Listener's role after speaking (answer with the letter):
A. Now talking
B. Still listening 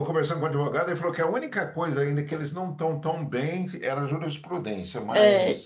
A